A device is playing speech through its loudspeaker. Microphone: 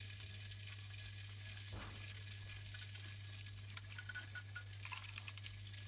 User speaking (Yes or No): No